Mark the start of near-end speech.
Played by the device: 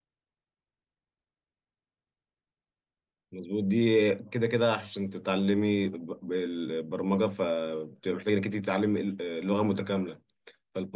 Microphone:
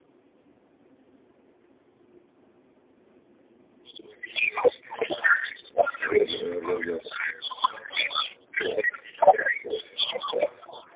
6.0 s

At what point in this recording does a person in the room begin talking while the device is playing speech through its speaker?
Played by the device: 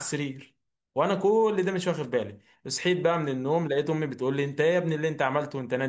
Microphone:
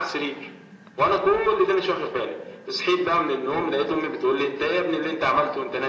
none

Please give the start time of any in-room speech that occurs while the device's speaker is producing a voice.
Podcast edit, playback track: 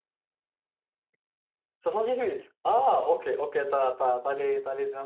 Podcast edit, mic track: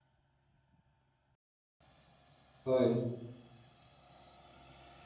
2.6 s

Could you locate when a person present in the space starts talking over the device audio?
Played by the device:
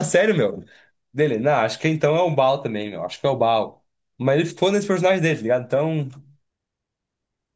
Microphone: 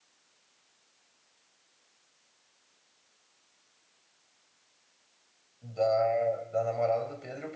5.6 s

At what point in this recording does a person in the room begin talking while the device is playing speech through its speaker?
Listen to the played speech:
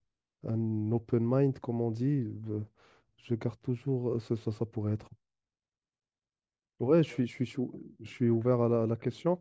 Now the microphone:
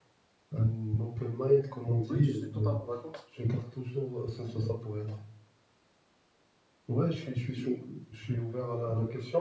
2.1 s

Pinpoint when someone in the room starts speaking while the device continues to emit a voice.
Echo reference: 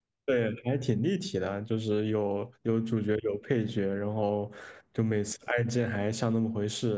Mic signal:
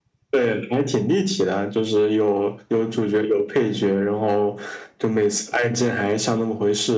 none

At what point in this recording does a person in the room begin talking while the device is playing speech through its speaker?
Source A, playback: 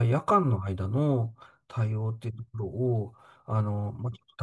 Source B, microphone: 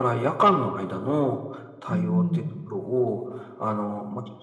1.8 s

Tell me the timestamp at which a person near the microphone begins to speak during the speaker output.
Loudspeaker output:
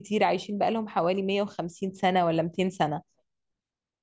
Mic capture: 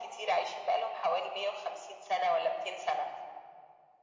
none

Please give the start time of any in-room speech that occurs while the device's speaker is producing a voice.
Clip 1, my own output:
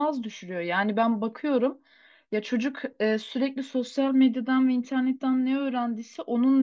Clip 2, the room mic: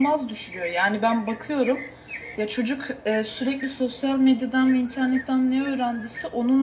none

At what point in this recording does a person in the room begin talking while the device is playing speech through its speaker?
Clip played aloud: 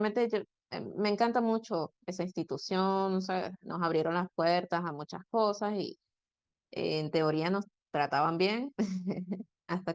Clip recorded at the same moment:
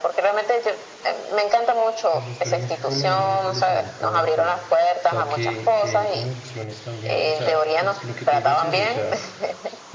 2.1 s

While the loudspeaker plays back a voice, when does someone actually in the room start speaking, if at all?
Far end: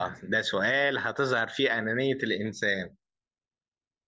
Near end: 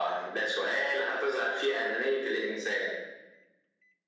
none

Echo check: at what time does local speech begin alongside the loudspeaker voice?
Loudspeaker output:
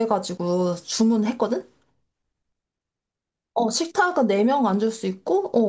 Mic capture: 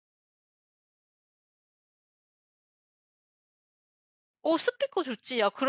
4.4 s

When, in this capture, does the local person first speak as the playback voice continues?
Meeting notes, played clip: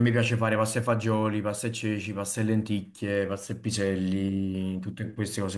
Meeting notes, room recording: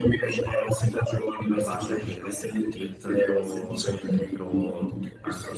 1.5 s

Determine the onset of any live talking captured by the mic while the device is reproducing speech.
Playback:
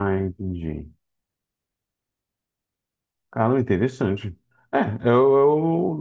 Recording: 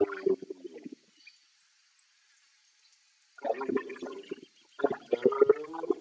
none

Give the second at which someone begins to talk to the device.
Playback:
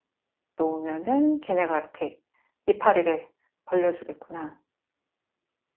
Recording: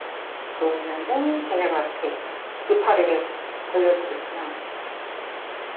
none

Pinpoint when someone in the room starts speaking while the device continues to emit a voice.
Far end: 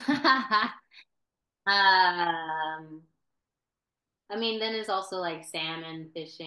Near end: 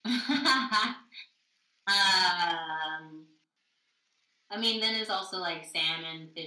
none

